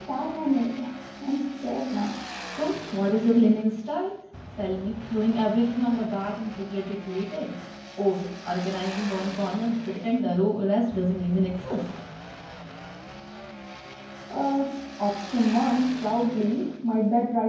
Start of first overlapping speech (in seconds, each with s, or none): none